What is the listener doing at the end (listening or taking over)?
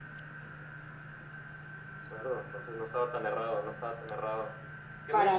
listening